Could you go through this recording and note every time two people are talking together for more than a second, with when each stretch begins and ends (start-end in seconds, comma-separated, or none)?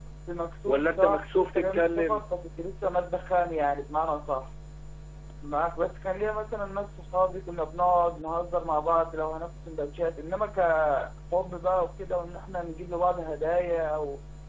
0.7-2.2